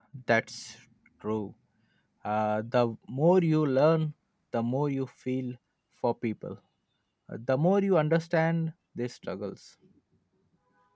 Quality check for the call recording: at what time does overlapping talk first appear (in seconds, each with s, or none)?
none